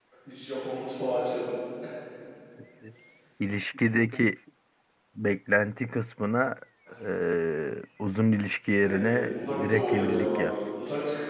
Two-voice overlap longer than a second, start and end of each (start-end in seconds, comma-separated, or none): 8.8-10.6